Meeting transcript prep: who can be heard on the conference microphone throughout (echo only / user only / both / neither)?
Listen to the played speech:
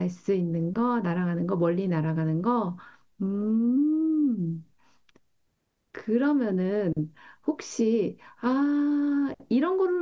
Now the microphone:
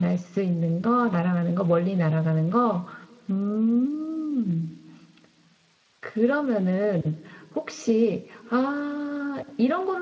echo only